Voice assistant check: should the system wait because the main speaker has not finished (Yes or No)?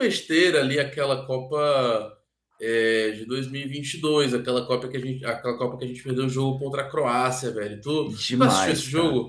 No